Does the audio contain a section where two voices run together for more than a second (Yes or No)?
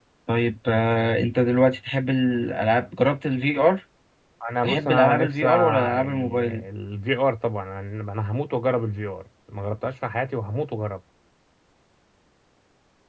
Yes